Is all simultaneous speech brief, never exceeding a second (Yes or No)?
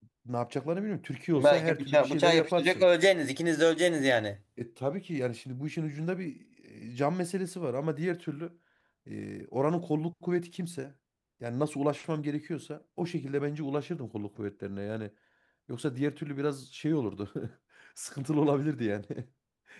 No